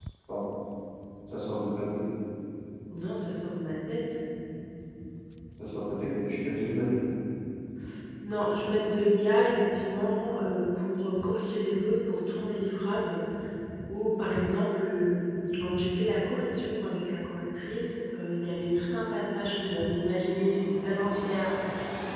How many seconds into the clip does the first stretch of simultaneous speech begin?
none

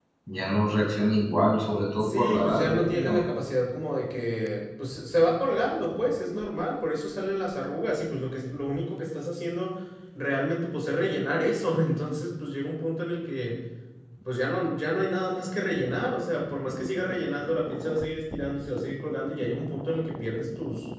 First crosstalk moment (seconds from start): 2.0 s

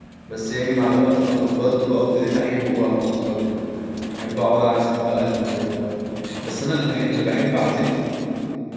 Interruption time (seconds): none

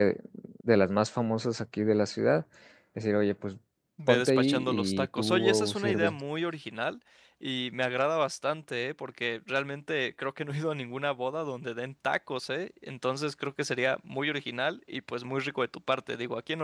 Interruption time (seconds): 4.1 s

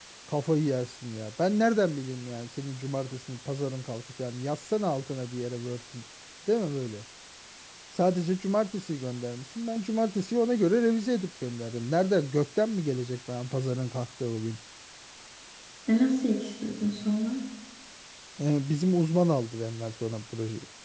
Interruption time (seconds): none

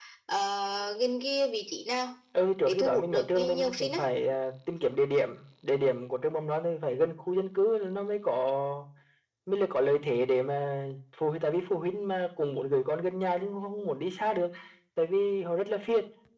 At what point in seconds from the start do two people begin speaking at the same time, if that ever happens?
2.6 s

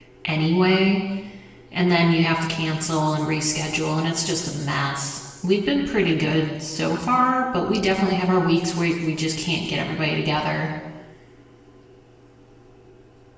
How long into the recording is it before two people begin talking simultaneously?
none

